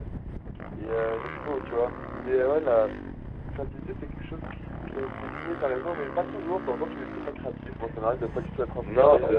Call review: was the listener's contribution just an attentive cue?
No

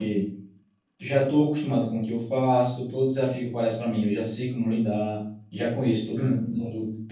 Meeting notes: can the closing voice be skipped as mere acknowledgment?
Yes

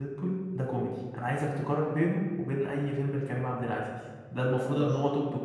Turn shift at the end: No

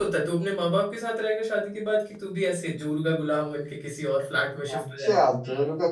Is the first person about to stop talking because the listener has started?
Yes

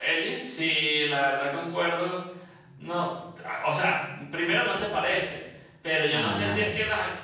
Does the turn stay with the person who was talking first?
Yes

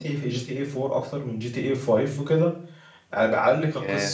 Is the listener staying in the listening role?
Yes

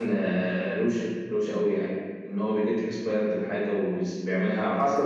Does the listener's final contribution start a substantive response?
Yes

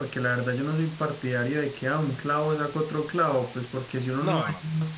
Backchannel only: Yes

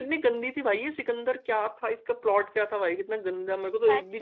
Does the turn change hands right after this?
Yes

